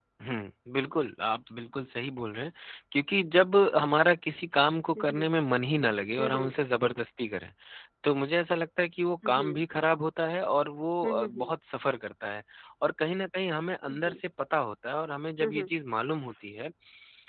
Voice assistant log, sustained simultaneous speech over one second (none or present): none